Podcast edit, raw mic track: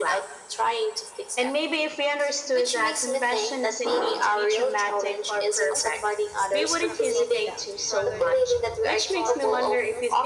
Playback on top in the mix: Yes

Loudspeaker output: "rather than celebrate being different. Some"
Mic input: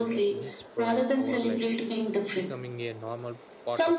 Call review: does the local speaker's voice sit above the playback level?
No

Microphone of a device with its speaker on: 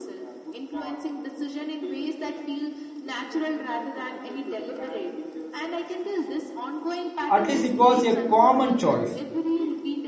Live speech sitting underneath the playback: No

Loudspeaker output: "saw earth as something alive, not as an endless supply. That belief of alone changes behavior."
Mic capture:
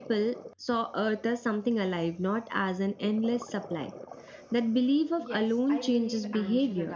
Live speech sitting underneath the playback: Yes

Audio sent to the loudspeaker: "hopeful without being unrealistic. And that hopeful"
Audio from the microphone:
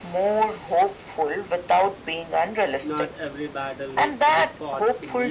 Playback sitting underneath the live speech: No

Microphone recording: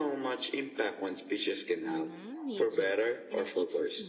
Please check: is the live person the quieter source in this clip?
Yes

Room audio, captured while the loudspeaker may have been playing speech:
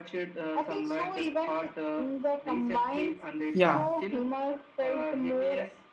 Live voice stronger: Yes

